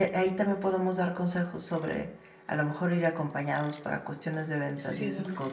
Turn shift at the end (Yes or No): No